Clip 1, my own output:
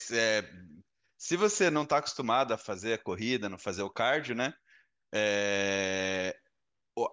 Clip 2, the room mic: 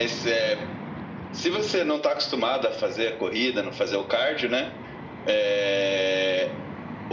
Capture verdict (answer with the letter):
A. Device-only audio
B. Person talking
A